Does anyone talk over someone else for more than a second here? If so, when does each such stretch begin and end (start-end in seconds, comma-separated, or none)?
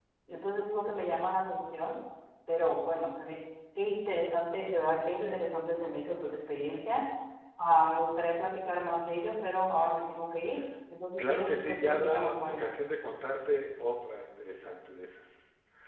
11.2-12.7